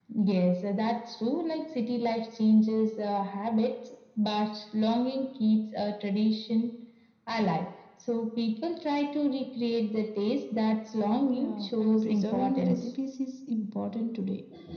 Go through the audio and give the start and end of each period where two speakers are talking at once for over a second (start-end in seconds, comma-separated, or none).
11.3-12.9